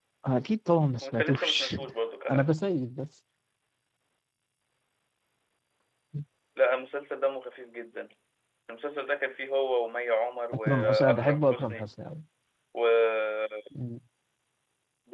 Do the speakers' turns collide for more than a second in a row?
Yes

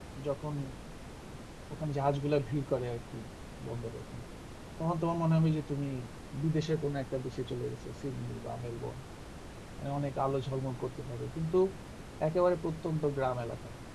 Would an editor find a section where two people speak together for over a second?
No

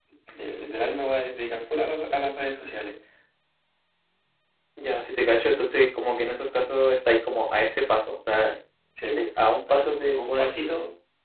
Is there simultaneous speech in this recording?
Yes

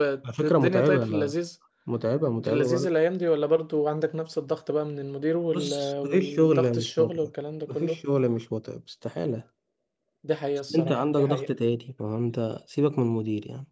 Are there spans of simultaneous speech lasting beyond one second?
Yes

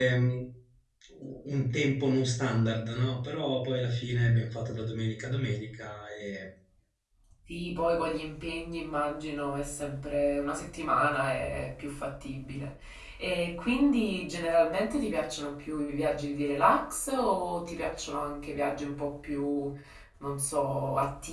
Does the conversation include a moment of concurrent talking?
No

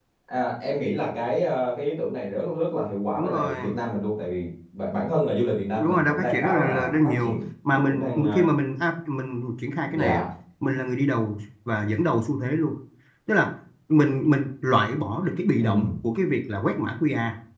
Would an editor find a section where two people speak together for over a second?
Yes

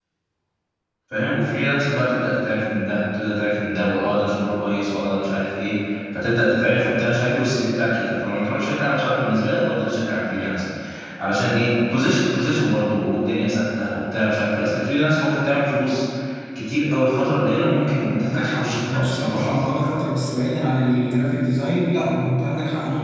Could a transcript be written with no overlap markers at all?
No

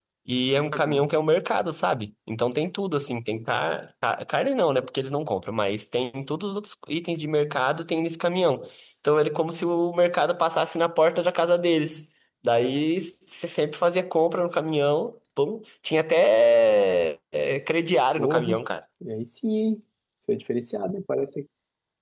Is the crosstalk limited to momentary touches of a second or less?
Yes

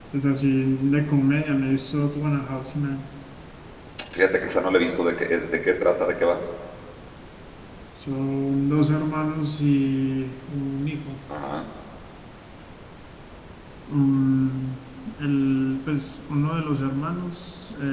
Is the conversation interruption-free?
Yes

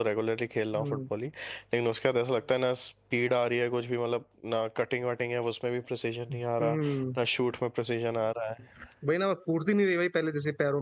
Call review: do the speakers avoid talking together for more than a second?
Yes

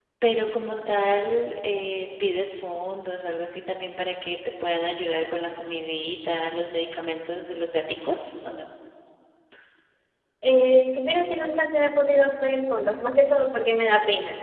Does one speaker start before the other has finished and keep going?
No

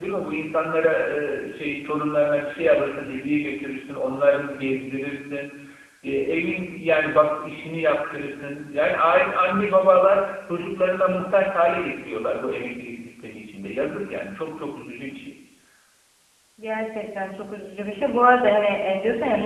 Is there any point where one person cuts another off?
No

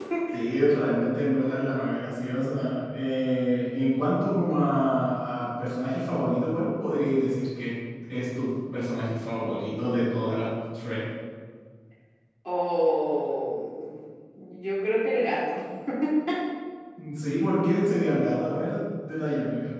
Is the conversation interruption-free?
Yes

